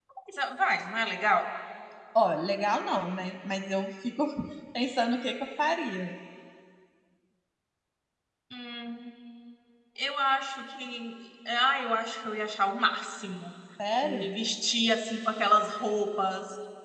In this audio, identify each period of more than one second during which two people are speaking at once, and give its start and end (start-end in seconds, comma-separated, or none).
none